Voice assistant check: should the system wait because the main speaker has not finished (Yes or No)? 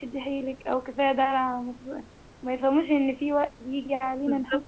Yes